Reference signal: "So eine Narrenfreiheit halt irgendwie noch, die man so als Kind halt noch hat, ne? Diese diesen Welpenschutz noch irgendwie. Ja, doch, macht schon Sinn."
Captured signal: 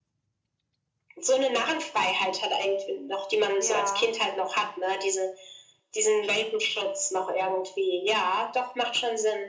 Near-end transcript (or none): Ja.